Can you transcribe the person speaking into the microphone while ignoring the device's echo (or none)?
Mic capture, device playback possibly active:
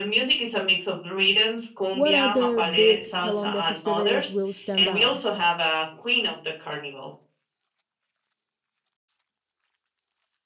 what other big Colombia festivities will stand out?